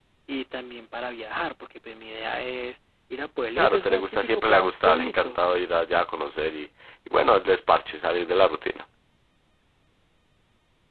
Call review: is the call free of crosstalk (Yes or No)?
No